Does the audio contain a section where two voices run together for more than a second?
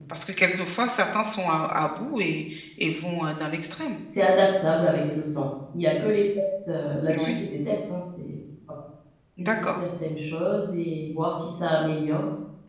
No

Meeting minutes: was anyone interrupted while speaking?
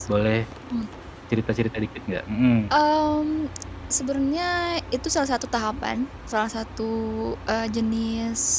No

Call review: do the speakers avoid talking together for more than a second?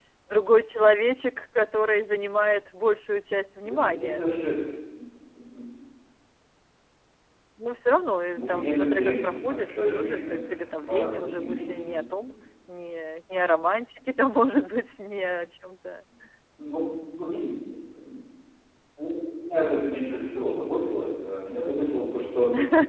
No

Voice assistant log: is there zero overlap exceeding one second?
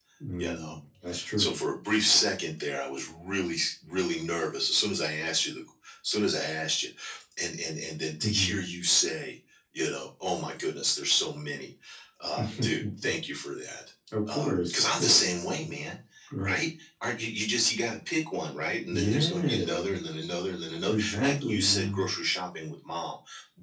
No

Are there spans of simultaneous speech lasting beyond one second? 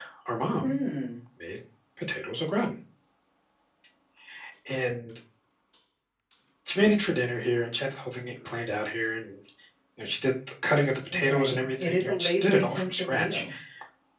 Yes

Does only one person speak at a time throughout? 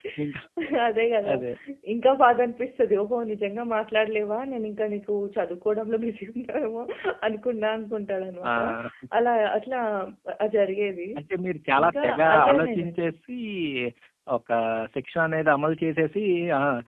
No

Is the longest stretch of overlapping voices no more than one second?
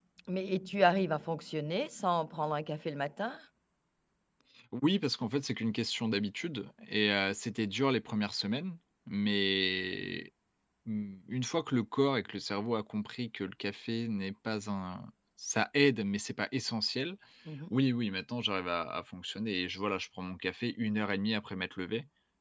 Yes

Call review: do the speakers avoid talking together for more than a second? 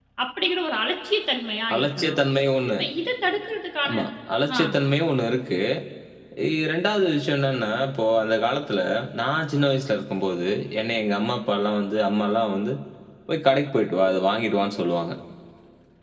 Yes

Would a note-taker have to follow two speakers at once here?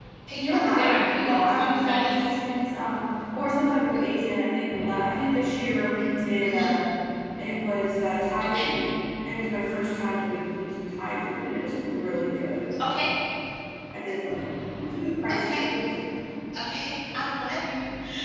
Yes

